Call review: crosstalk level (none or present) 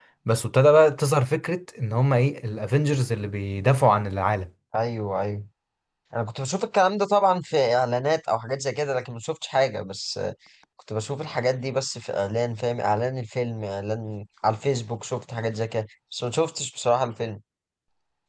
none